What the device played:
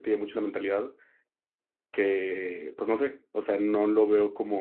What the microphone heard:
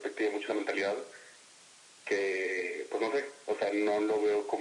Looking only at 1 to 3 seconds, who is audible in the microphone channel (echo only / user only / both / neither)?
echo only